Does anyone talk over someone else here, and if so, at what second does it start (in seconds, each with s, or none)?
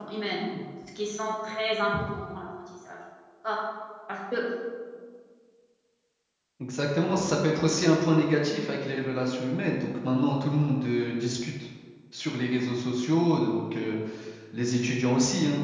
none